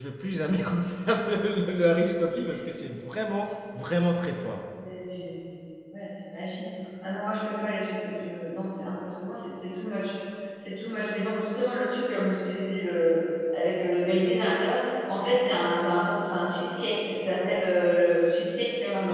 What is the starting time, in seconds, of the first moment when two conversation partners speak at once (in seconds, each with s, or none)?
none